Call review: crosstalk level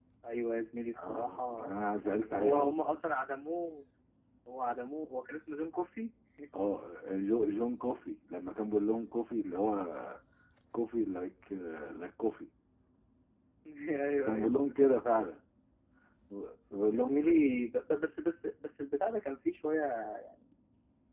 present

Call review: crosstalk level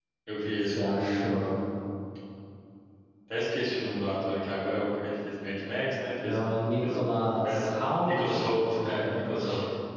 present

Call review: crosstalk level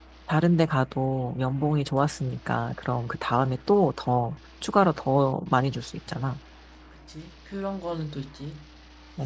none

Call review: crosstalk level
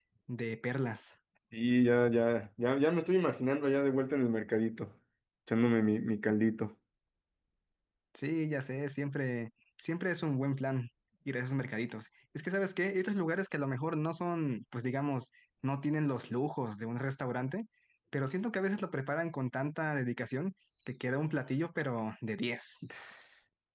none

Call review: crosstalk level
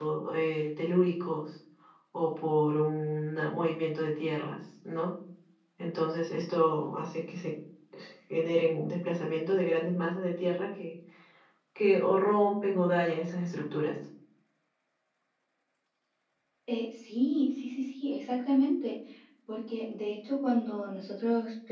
none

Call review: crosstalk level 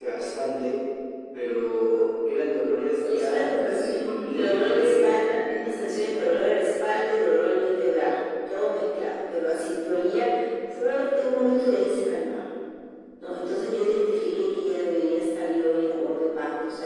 present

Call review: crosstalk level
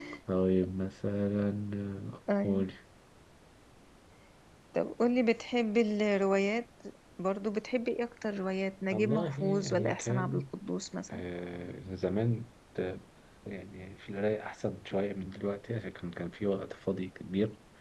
present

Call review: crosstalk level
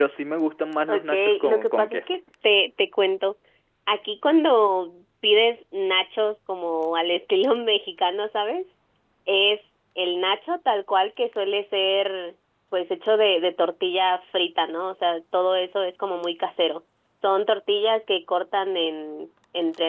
present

